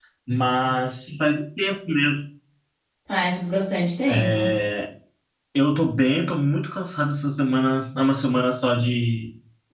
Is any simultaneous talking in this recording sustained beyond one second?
No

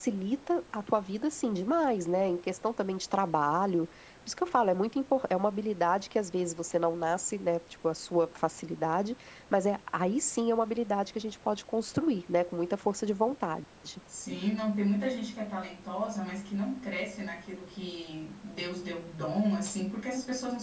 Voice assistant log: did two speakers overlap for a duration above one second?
No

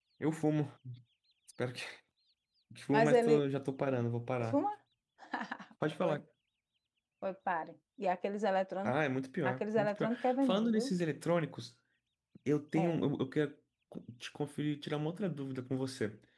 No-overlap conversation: No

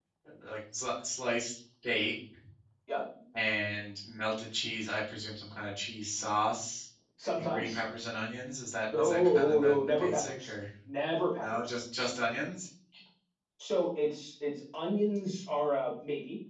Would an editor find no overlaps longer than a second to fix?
No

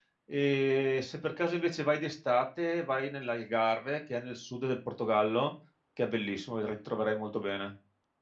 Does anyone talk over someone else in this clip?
No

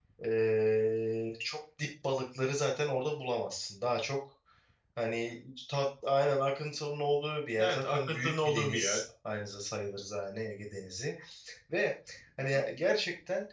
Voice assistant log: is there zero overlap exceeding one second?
No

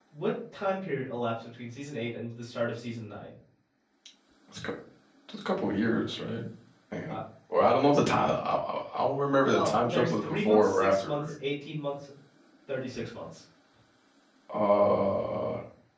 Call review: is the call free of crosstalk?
No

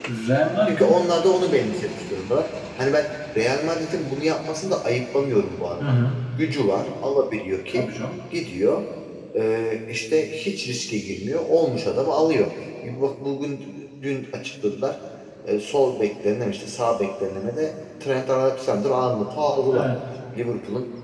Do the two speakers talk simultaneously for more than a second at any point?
No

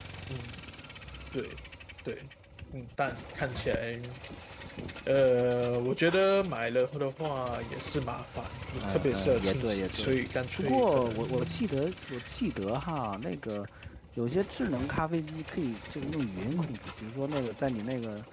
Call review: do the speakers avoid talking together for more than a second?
No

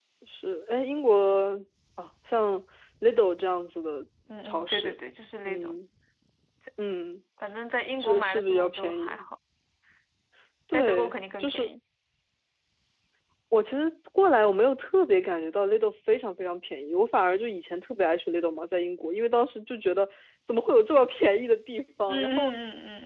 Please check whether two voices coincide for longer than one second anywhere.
Yes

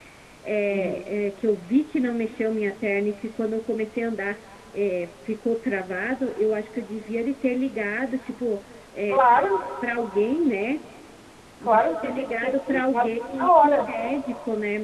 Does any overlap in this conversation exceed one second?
Yes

